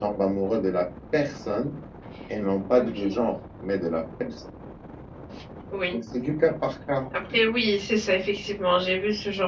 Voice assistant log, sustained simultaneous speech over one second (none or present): none